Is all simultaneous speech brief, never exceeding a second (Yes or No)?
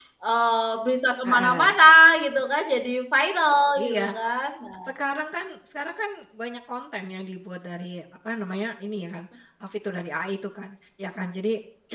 Yes